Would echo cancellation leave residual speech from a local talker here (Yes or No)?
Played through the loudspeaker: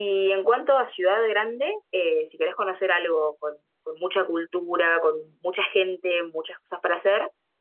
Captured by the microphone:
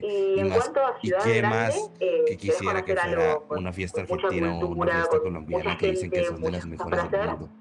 Yes